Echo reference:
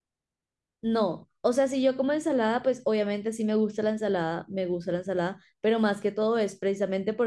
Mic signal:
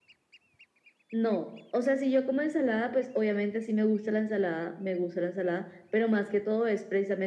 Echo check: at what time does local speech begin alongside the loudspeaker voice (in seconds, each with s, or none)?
none